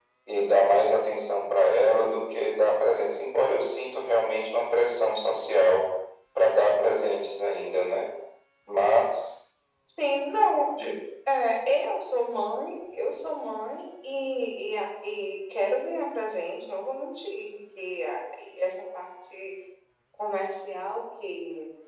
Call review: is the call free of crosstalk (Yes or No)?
Yes